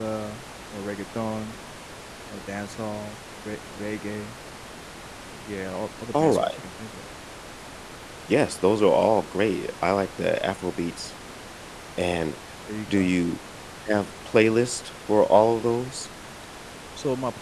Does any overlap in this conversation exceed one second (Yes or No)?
No